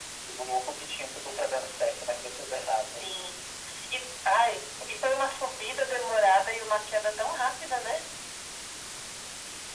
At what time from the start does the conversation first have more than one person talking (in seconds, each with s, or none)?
none